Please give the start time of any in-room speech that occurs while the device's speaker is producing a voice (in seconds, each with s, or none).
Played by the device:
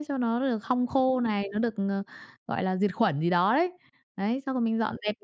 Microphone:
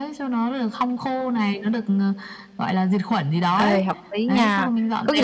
3.5 s